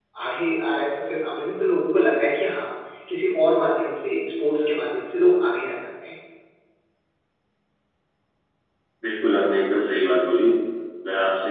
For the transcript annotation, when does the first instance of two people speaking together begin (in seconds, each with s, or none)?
none